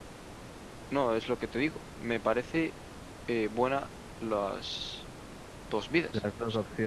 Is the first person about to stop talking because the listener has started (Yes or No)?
Yes